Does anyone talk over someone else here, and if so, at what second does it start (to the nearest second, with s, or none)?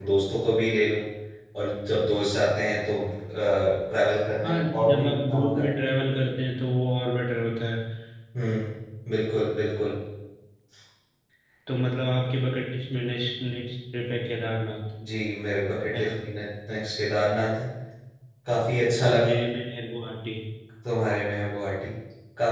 4 s